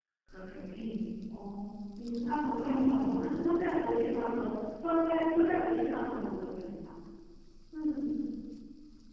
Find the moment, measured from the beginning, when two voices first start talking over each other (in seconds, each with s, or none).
2.3 s